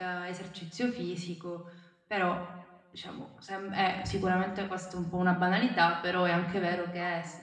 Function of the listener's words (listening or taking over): listening